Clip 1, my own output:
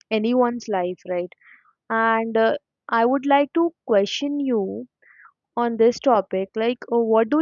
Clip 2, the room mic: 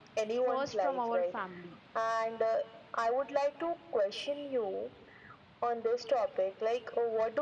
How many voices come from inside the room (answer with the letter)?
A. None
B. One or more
B